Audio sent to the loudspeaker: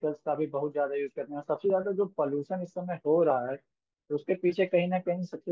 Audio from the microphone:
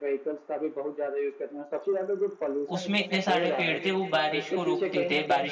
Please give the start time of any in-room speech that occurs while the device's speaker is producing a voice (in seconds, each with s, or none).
2.7 s